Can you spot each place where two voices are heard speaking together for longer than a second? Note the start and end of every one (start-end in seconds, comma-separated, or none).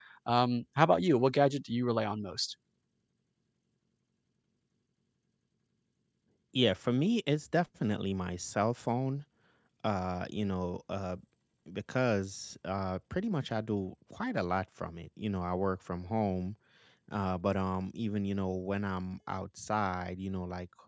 none